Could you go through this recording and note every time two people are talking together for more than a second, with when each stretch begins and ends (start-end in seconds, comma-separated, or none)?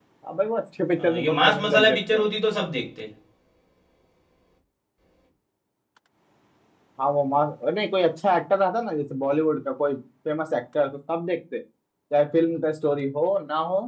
1.0-2.3